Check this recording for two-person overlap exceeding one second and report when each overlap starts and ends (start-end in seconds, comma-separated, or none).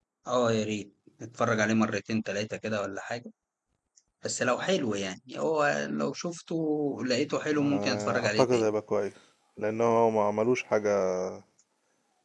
7.5-8.7